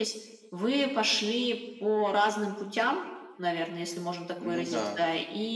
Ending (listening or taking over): listening